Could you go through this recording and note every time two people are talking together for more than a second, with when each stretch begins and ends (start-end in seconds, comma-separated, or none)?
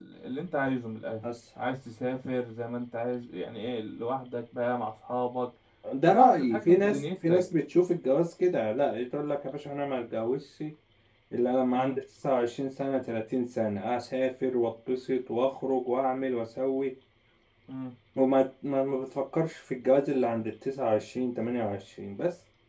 6.1-7.4